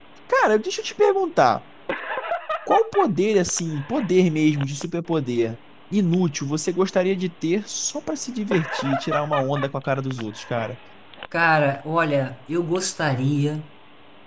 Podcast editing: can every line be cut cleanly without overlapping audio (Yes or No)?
Yes